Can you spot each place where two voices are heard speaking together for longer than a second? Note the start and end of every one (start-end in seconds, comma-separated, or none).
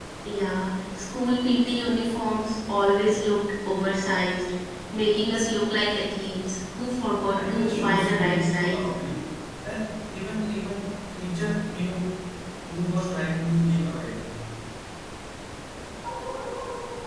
7.3-8.8